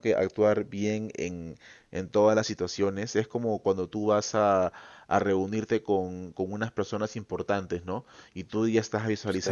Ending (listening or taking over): listening